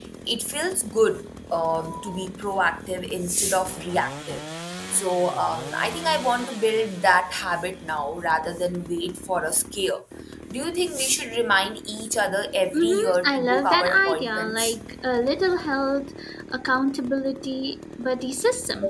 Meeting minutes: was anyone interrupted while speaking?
Yes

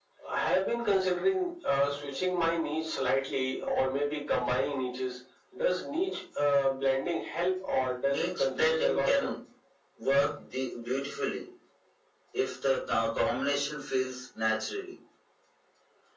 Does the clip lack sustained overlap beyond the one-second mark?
No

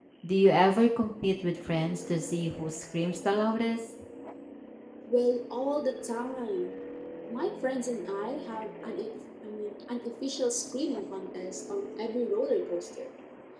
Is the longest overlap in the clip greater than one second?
No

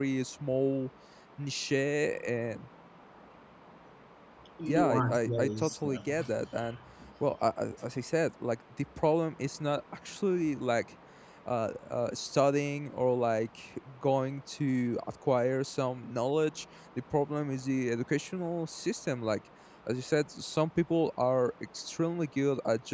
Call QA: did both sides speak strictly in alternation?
No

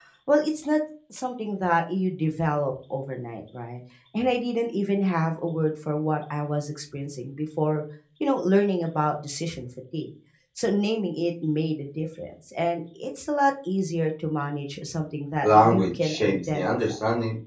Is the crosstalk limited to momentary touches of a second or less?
No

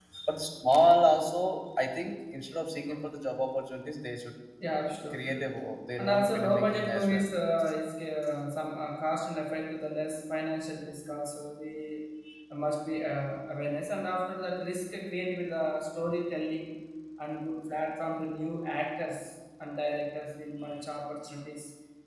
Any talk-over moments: Yes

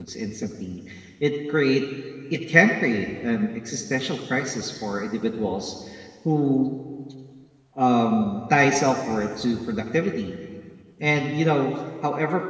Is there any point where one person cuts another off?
No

